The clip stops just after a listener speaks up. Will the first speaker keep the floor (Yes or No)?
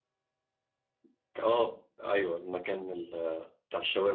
Yes